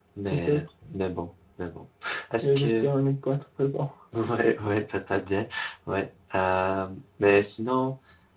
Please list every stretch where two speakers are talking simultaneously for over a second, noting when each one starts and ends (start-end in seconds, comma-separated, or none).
none